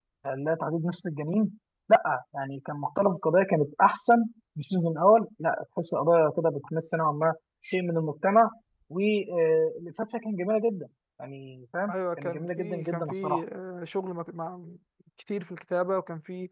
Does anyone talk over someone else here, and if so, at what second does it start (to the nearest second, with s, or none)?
12 s